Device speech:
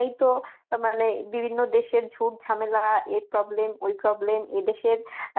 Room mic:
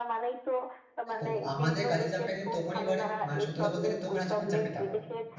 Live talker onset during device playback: 1.1 s

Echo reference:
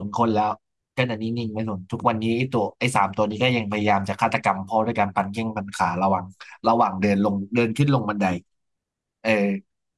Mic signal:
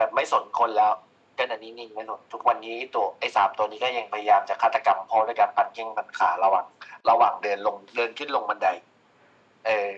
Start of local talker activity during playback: none

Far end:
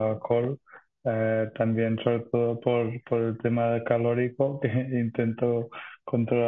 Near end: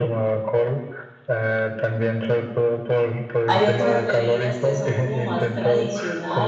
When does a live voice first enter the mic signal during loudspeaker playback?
3.5 s

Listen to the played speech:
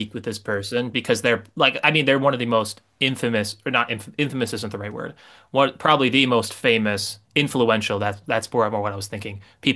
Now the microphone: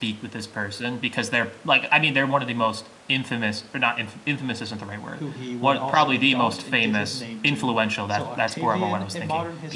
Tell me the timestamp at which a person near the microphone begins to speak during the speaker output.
5.1 s

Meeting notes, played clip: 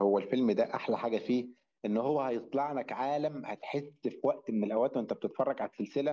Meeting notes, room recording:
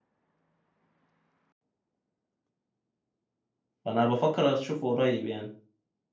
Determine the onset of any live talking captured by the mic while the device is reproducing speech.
3.8 s

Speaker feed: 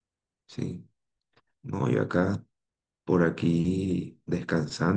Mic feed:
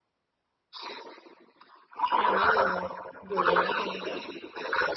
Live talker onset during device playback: 2.1 s

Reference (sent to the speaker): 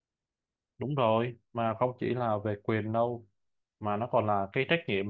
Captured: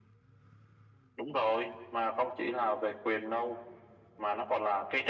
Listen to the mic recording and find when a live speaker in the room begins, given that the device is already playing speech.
none

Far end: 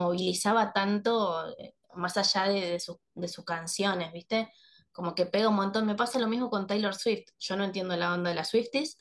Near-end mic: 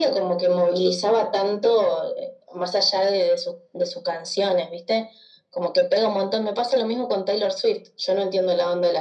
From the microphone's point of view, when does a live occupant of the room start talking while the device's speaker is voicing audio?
none

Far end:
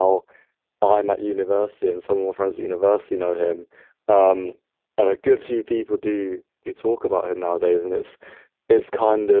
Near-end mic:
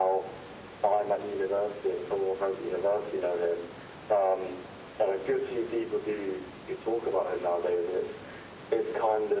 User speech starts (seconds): none

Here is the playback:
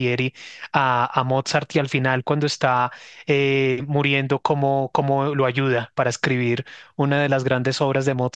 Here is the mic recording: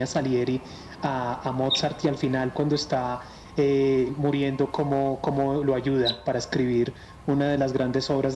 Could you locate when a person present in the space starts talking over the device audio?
none

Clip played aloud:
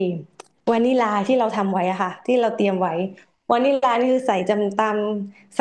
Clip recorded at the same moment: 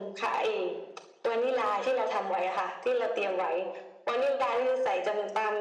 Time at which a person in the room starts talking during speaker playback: none

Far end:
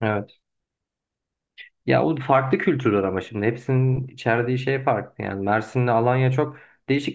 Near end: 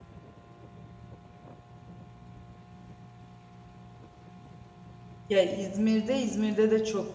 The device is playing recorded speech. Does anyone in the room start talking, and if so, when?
5.3 s

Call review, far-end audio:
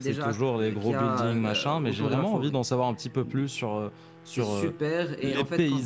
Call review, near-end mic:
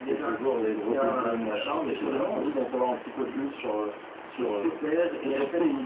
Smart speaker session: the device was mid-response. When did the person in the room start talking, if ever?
none

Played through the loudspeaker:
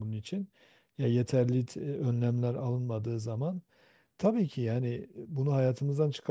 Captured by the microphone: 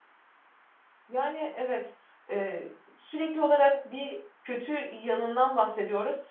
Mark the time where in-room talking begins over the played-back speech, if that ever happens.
1.1 s

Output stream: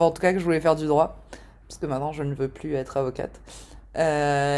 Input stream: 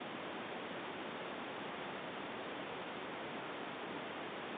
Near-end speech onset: none

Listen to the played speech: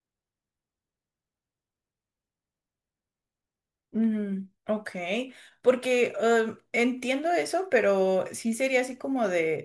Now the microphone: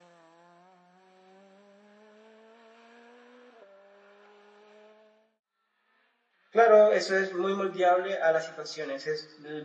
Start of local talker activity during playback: 6.5 s

